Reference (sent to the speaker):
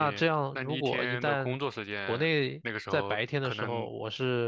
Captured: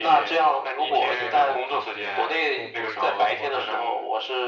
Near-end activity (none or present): present